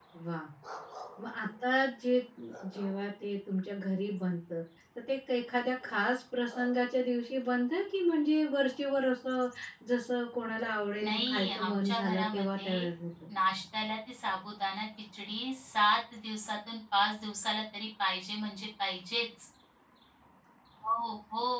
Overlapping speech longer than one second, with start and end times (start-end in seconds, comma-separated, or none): 11.0-12.8